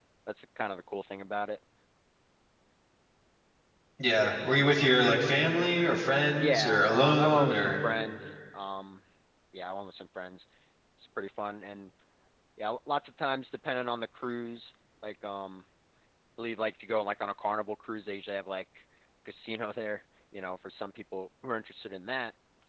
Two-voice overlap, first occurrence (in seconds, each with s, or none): 6.3 s